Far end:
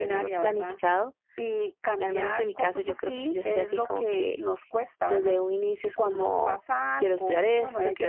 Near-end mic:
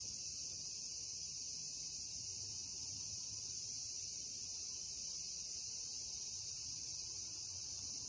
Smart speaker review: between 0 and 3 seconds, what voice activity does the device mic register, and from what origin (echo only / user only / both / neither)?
neither